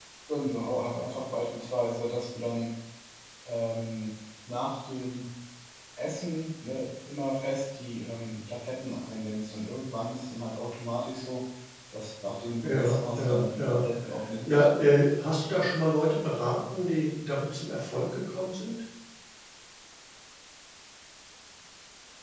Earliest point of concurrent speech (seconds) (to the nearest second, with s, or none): 13 s